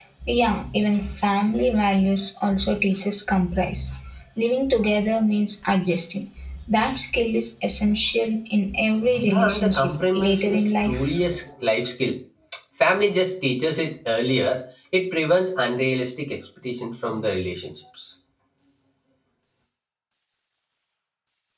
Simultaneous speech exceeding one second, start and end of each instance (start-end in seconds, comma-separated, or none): 9.2-11.1